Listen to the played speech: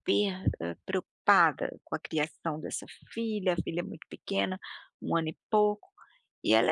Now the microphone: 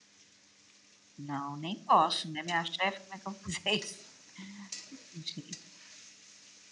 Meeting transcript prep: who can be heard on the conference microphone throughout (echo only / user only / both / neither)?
user only